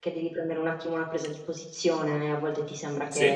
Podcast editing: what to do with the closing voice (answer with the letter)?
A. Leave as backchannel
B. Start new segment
A